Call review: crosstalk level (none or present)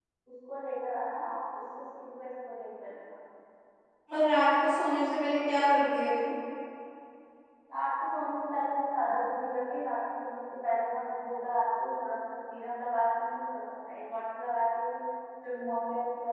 none